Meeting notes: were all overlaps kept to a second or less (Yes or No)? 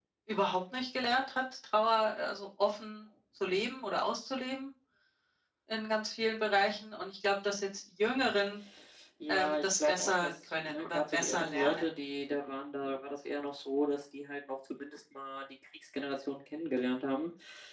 No